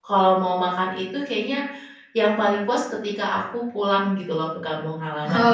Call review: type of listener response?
taking over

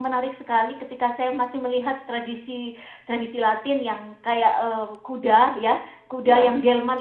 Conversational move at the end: listening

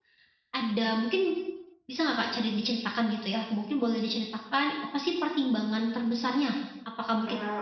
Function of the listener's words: listening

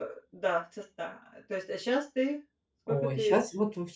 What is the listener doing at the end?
taking over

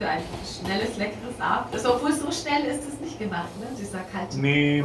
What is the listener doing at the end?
taking over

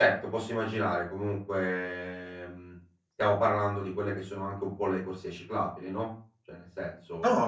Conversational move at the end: taking over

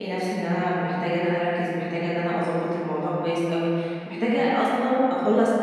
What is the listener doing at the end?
listening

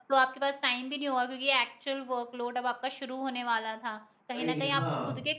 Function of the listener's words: listening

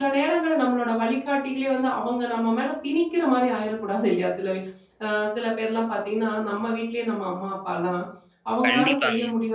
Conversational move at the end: listening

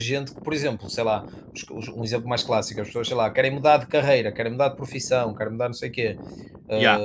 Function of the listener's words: listening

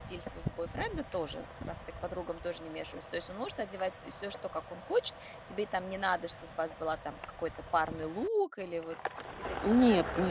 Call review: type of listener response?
taking over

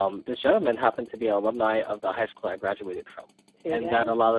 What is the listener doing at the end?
listening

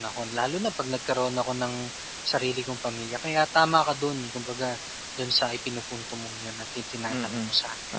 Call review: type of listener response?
taking over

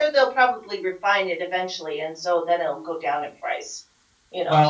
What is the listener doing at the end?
taking over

